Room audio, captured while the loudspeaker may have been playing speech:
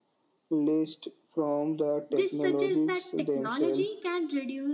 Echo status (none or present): present